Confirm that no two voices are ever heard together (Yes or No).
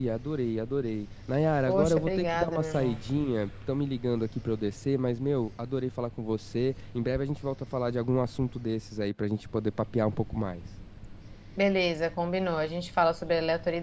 No